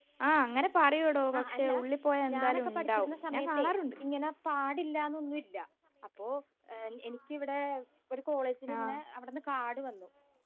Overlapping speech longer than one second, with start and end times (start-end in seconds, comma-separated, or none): 2.3-3.6